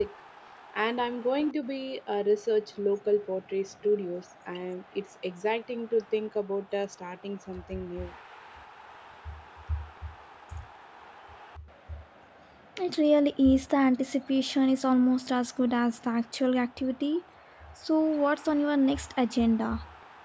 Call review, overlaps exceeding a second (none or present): none